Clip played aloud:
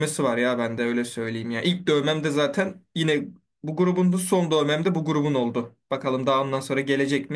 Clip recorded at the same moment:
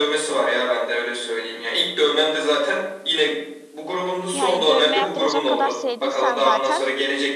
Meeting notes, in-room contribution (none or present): present